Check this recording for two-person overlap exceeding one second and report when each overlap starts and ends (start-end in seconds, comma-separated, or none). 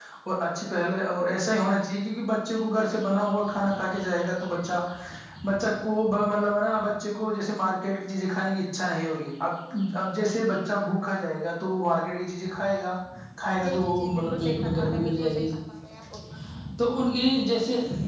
13.7-15.5